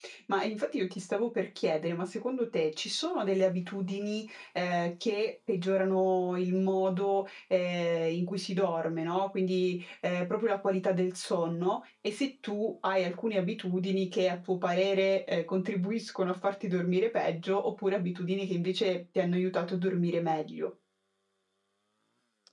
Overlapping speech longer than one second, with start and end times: none

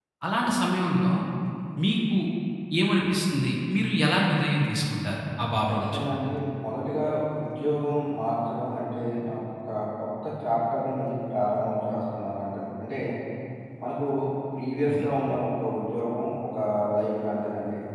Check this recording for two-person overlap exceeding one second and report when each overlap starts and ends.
none

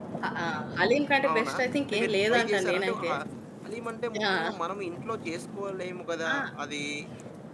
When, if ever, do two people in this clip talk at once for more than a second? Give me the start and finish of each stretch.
1.3-3.1

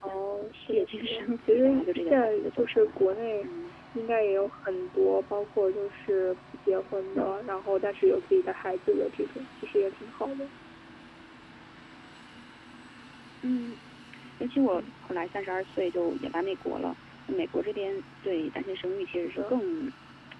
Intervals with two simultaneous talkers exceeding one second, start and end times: 0.7-3.5

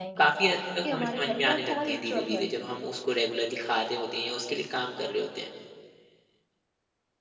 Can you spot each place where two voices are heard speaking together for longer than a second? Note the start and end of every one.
0.8-2.5

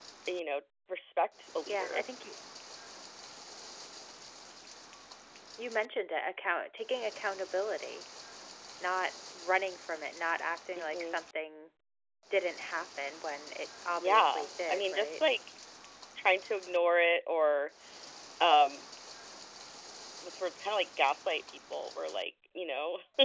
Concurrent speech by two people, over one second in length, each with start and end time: 14.0-15.2

